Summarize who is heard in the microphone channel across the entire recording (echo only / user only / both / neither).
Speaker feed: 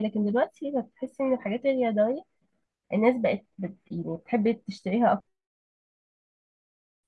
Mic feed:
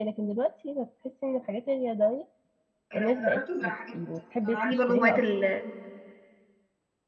both